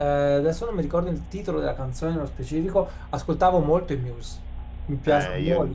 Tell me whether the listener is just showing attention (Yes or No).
No